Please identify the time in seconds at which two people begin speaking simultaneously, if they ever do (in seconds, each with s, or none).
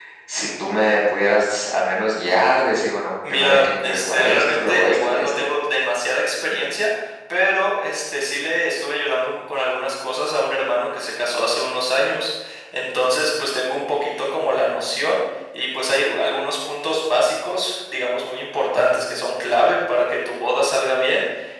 3.2 s